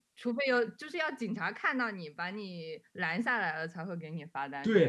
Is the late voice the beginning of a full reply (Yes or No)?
Yes